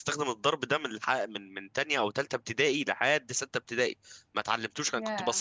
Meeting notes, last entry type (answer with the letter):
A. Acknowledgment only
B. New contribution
A